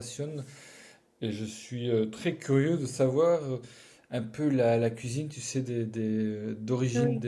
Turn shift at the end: No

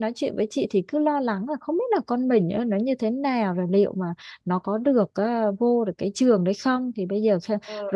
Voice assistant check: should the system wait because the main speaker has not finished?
Yes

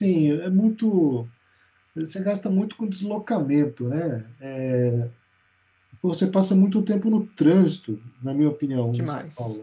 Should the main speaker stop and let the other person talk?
No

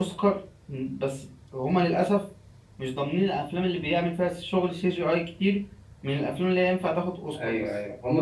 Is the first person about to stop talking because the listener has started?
Yes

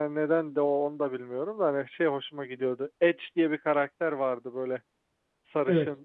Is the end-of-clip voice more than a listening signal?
No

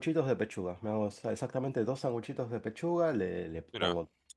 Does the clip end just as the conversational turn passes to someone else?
No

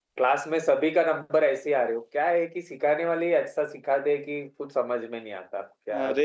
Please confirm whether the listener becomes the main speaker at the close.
Yes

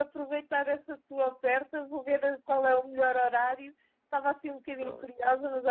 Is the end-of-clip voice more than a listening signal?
No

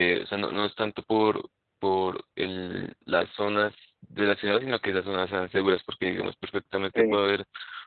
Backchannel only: Yes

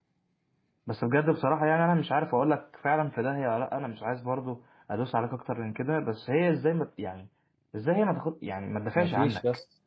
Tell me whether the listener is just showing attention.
No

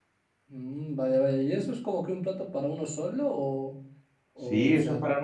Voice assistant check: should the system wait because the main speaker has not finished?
No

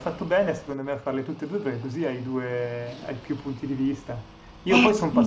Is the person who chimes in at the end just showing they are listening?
Yes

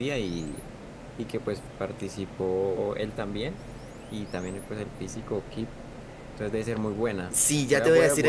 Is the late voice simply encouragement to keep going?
No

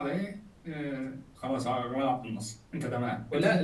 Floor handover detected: Yes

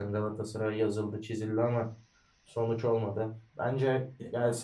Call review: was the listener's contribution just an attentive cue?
Yes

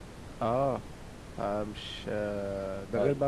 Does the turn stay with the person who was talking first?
Yes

